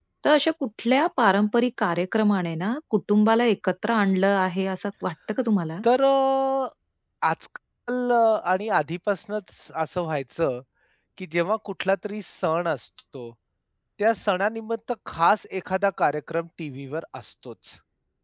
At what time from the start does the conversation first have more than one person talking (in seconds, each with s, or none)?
none